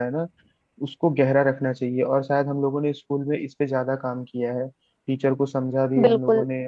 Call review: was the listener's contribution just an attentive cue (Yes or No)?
Yes